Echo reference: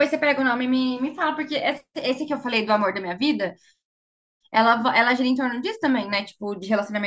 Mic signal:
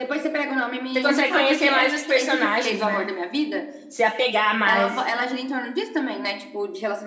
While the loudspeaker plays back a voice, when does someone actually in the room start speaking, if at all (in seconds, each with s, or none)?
0.9 s